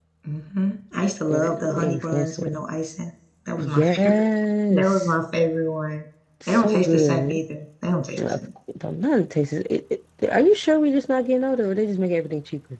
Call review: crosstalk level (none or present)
present